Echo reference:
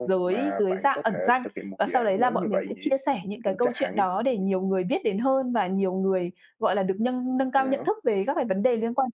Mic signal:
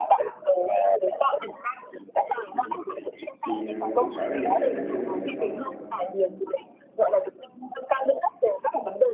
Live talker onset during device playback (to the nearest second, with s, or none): 3 s